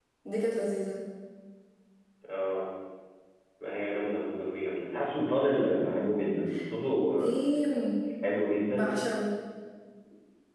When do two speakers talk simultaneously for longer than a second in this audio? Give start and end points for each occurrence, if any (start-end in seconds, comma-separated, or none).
none